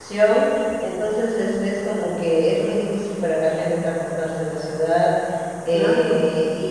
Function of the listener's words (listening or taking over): listening